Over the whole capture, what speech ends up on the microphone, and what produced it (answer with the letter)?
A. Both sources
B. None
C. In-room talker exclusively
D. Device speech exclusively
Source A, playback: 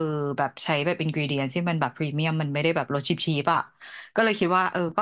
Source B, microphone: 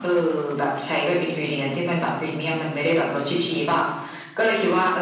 D